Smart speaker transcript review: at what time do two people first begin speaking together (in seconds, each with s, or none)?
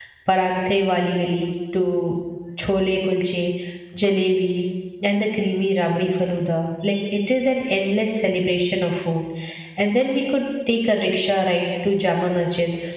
none